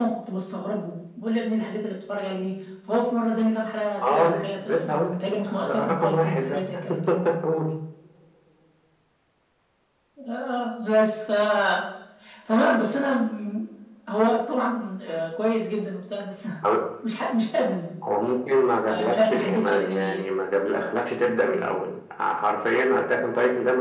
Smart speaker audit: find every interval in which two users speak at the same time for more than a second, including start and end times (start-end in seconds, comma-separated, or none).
4.1-6.8, 18.9-20.2